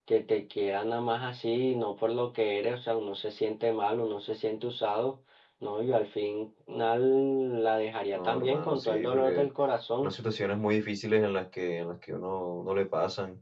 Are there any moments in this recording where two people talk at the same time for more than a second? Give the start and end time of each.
8.1-9.5

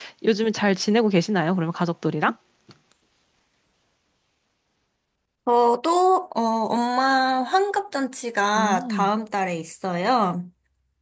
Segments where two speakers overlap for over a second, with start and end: none

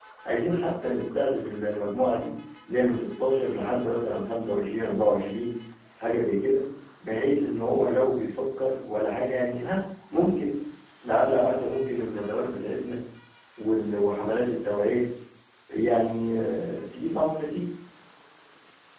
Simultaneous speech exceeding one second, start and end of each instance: none

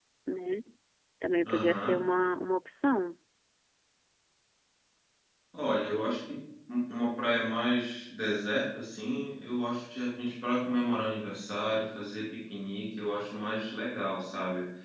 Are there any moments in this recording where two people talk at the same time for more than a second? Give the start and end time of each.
none

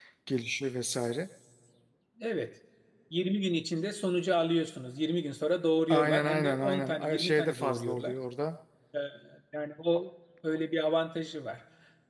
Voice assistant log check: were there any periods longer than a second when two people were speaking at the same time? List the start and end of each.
5.9-8.2

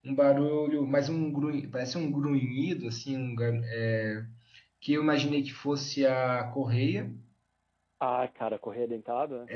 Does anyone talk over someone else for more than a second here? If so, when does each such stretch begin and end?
none

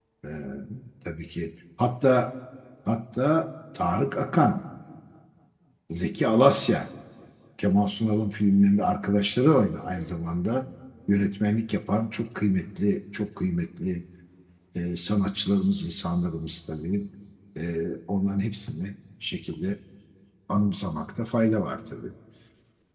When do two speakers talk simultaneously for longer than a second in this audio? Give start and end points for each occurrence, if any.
none

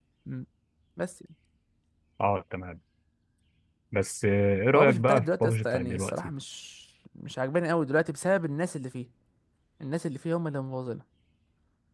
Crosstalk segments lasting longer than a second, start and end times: 4.7-6.1

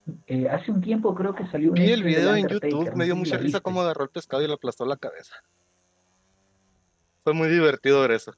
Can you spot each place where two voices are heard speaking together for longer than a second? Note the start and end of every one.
1.8-3.8

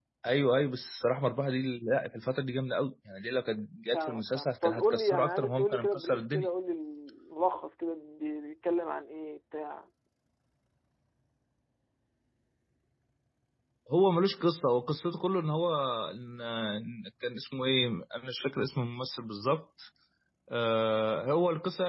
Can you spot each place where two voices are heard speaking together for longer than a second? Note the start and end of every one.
3.9-6.5

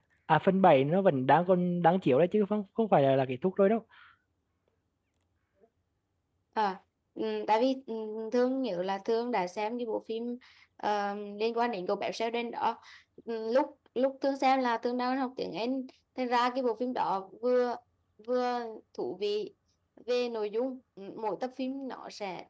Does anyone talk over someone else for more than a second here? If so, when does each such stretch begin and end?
none

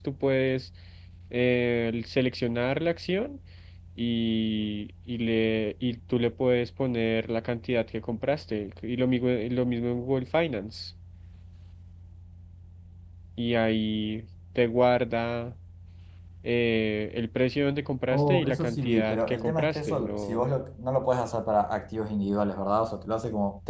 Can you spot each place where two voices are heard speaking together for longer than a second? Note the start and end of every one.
18.1-20.5

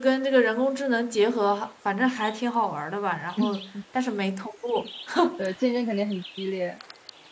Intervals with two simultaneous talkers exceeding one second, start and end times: none

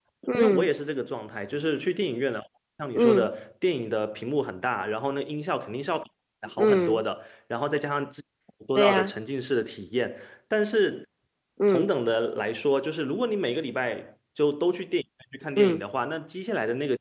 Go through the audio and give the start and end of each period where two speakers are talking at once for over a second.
none

